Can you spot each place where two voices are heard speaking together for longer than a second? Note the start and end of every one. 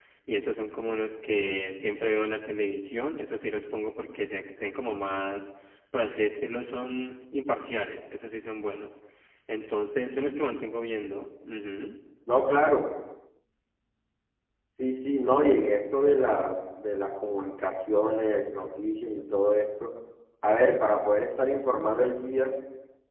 none

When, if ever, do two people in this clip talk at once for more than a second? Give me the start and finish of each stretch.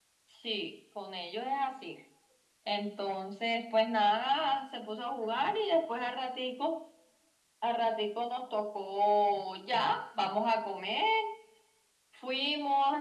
none

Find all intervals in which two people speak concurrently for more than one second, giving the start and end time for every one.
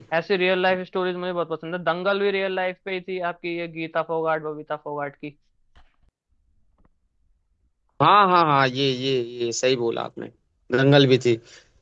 none

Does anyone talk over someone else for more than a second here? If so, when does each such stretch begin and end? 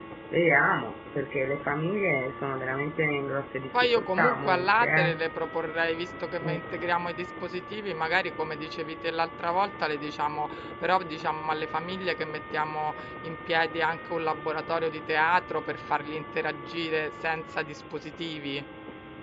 3.8-5.2

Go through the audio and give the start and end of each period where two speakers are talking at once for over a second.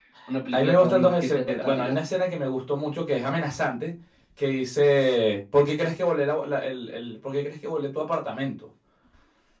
0.5-1.9

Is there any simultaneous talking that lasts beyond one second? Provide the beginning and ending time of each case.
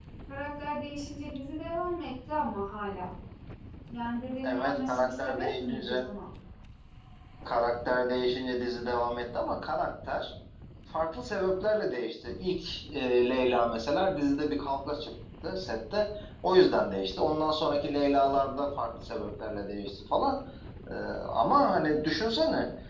4.4-6.0

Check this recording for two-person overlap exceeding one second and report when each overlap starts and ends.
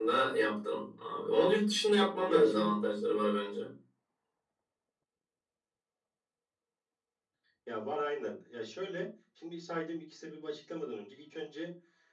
none

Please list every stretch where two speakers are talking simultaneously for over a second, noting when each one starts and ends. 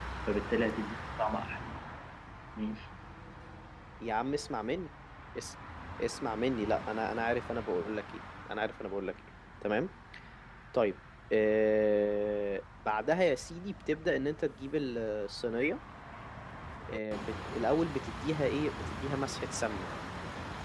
none

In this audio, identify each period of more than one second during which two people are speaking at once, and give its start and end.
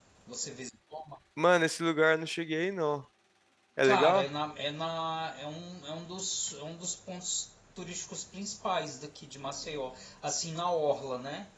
none

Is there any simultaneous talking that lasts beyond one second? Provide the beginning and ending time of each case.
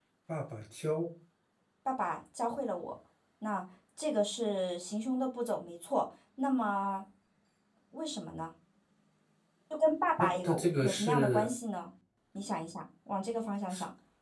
10.2-11.5

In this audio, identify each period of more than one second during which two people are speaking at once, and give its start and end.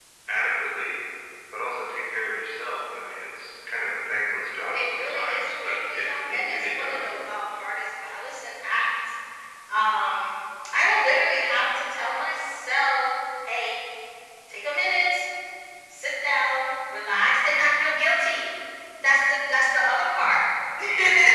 4.7-7.1

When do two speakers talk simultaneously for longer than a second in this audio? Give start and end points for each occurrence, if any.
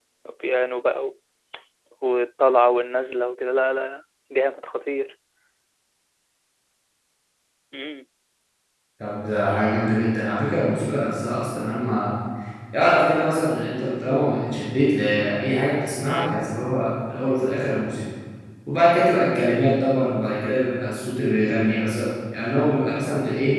none

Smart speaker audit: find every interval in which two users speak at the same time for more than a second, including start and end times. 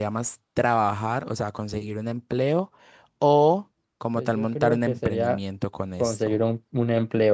4.2-5.4

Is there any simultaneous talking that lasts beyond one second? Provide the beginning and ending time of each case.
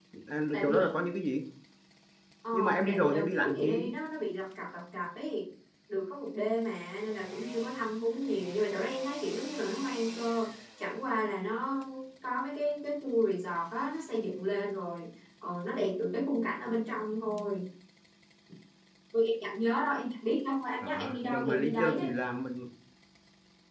2.5-3.9, 20.8-22.1

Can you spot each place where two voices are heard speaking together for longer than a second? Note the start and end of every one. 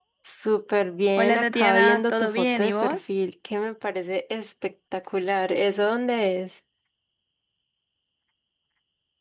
1.2-3.2

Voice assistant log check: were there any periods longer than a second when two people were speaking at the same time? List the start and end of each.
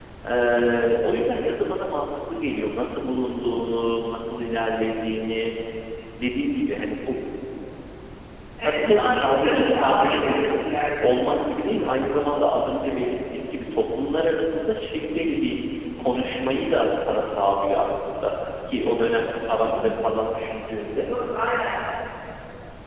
8.6-11.4

